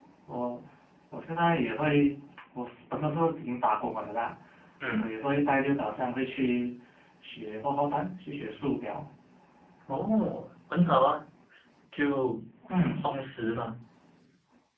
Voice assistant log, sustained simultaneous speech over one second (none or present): none